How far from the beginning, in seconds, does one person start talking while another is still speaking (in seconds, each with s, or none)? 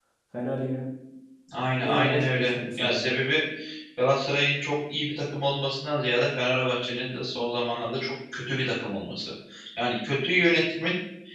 1.8 s